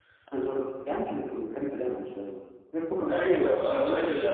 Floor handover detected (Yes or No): Yes